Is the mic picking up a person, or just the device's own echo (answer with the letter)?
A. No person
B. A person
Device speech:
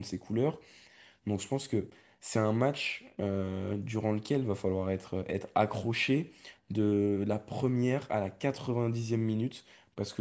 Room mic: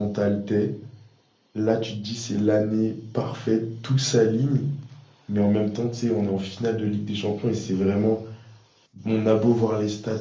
B